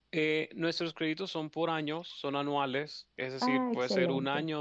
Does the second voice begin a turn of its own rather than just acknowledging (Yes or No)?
No